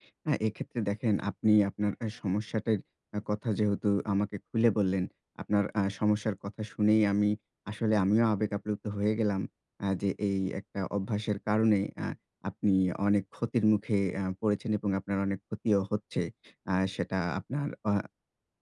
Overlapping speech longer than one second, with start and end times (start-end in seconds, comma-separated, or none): none